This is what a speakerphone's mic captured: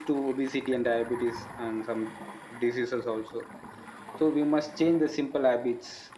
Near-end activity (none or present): none